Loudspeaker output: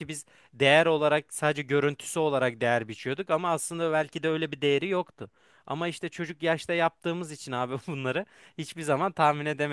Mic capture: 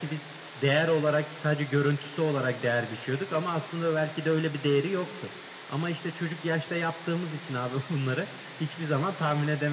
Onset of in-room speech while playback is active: none

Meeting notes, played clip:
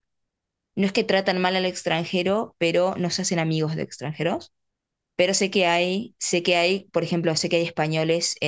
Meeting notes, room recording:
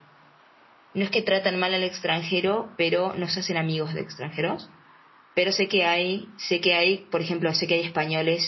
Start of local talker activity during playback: none

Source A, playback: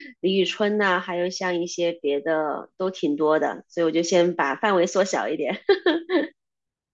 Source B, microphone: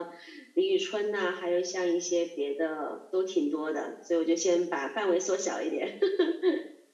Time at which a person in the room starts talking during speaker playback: none

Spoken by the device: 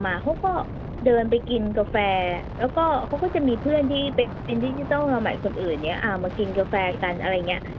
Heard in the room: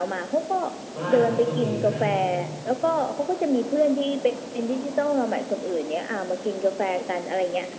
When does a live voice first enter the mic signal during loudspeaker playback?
1 s

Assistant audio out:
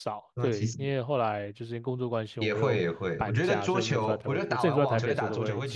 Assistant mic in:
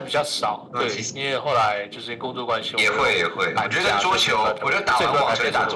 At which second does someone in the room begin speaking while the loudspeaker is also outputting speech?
none

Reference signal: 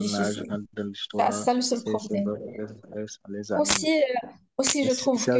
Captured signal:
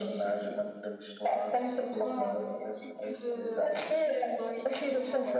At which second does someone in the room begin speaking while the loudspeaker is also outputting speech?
2 s

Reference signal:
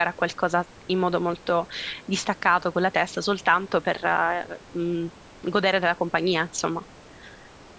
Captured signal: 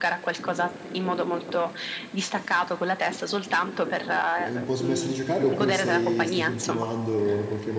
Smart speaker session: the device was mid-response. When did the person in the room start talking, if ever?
4 s

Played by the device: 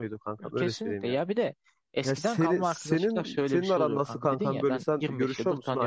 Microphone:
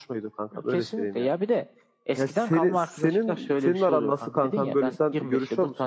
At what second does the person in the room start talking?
none

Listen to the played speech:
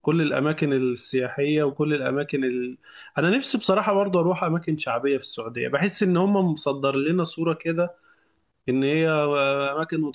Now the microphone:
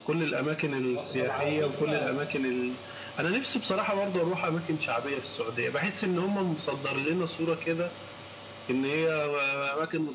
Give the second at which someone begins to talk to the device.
1 s

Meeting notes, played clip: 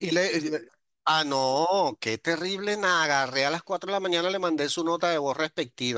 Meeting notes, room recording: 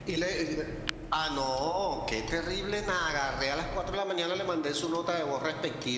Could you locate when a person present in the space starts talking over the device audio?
none

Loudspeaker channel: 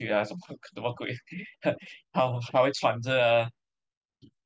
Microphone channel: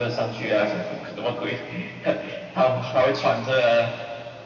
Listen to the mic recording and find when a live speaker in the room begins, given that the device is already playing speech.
none

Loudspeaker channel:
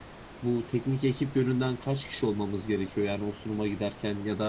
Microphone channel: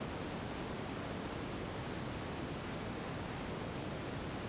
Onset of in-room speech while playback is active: none

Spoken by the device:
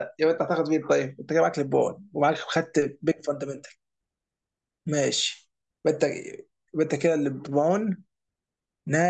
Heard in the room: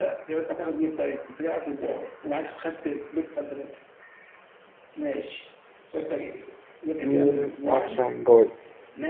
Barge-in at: 7 s

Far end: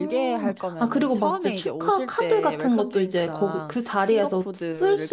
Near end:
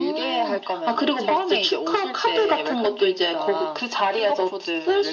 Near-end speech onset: none

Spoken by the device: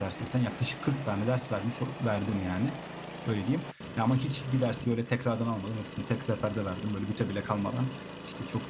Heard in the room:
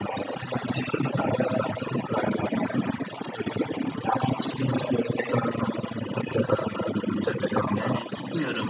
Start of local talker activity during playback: 7 s

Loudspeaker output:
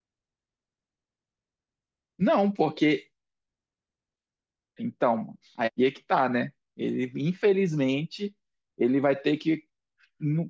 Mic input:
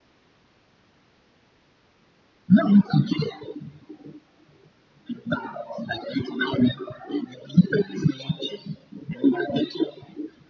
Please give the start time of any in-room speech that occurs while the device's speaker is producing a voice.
none

